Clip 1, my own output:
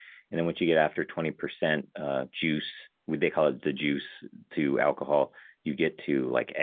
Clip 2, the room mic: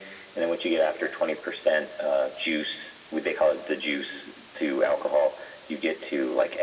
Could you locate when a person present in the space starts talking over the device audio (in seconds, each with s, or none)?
none